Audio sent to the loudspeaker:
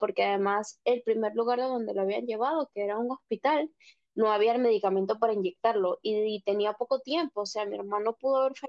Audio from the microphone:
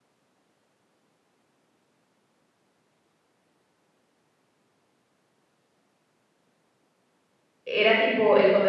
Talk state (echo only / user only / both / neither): user only